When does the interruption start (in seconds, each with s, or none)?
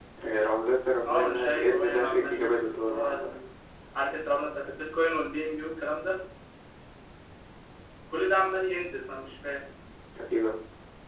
1.1 s